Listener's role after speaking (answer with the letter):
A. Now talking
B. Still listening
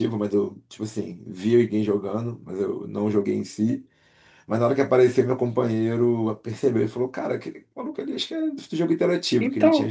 A